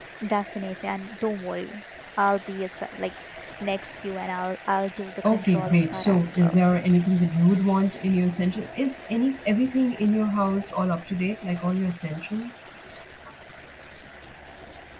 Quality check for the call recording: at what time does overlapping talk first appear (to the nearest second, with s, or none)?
5 s